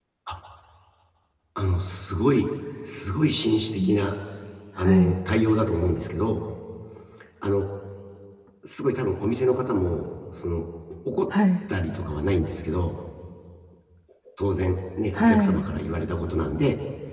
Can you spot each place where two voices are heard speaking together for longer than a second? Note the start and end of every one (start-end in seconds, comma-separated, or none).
none